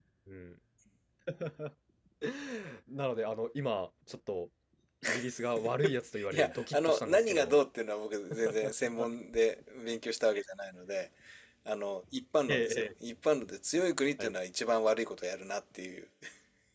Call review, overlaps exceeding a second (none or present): present